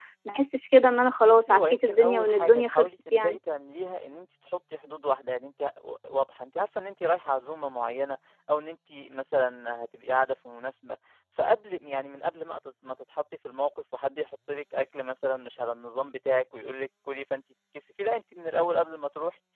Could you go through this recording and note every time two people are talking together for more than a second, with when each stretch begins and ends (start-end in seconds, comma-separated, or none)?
1.2-3.4